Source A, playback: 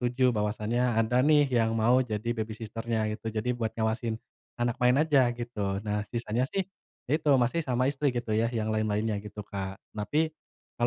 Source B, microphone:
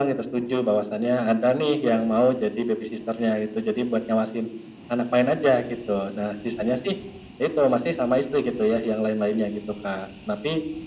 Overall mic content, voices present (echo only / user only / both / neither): echo only